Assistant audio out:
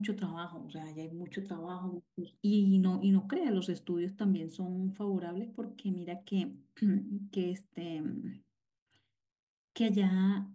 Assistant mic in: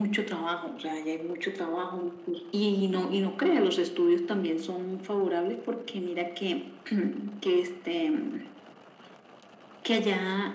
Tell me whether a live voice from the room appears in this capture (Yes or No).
No